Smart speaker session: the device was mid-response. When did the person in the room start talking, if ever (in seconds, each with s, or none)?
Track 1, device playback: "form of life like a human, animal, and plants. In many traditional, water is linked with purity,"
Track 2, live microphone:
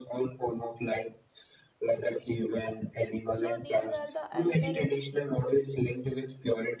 3.3 s